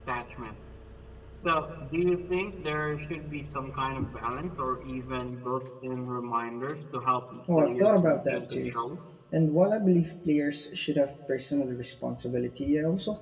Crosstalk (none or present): present